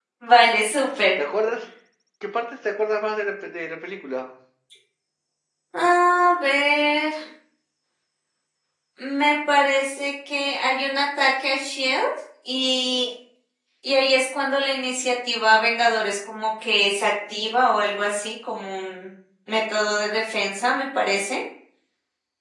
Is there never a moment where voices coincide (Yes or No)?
Yes